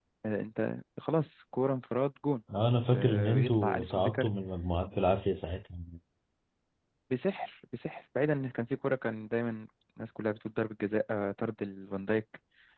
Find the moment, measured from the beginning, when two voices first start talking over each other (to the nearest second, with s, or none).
3 s